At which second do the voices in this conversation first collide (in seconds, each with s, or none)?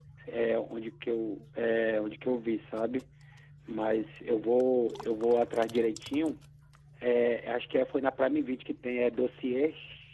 none